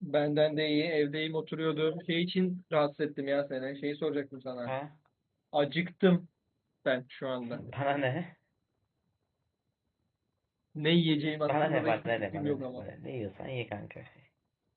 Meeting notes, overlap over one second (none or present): present